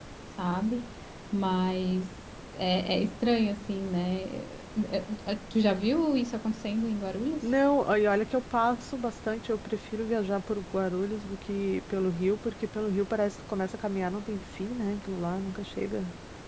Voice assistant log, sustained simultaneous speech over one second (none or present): none